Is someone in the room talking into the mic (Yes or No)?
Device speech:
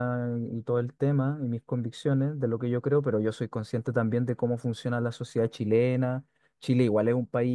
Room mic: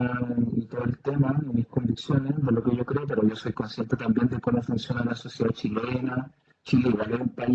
No